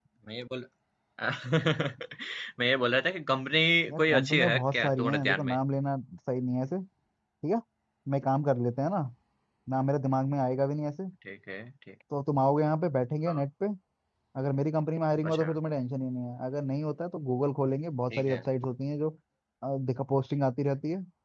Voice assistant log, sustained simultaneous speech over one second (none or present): present